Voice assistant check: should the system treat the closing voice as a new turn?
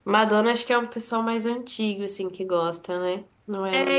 Yes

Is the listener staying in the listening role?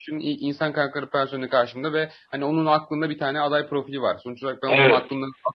Yes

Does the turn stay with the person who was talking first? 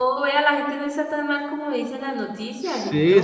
No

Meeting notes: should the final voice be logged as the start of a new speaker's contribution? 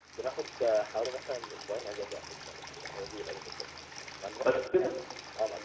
No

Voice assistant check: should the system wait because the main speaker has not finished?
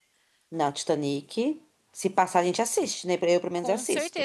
No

